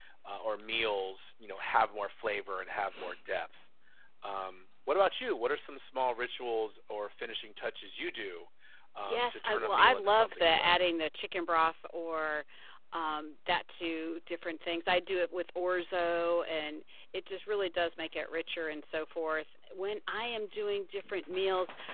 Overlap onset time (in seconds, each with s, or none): 9.0 s